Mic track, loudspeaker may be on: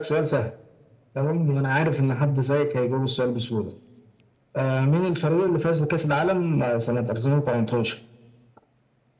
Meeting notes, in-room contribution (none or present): none